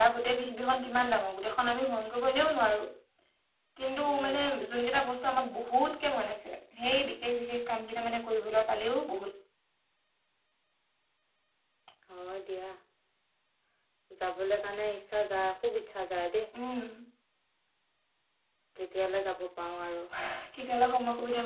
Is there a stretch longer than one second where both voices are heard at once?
No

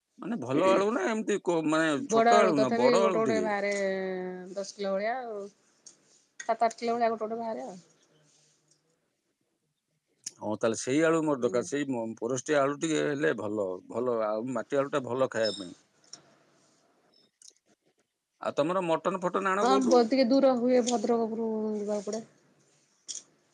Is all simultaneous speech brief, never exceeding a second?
No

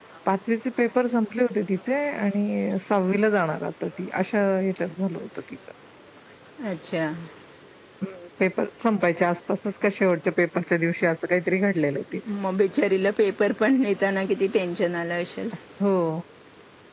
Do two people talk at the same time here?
No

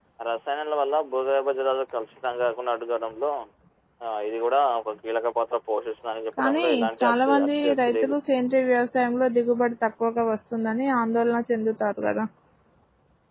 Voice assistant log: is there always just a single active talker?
No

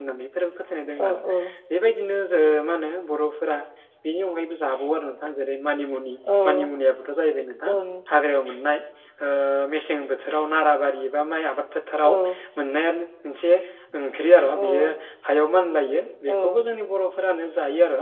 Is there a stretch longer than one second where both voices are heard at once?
No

